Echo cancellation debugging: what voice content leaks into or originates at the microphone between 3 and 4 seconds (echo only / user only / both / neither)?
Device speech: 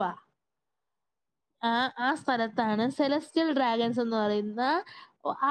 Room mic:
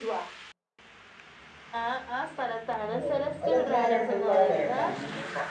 both